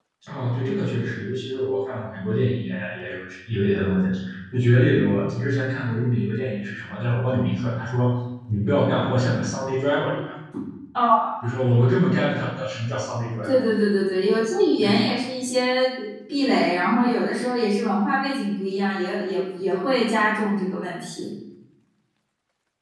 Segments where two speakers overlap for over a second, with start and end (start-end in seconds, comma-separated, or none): none